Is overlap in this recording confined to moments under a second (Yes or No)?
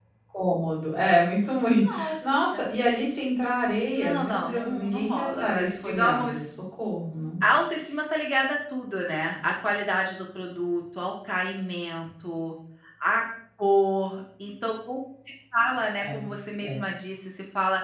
No